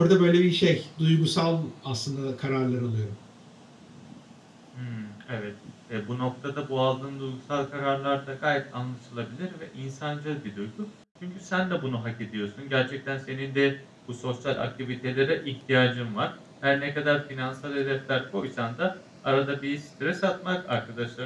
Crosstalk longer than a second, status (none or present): none